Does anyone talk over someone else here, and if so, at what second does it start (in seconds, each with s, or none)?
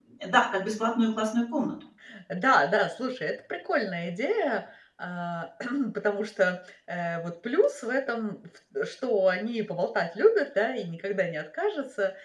none